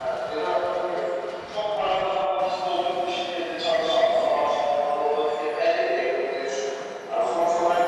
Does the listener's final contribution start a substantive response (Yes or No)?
No